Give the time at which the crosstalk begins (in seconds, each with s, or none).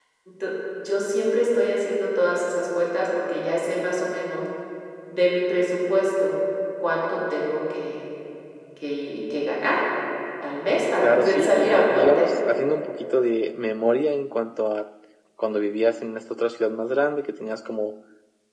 11.0 s